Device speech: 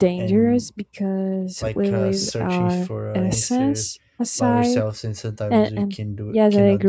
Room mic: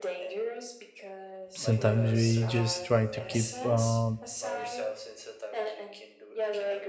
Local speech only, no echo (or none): sometimes we just try to keep uh,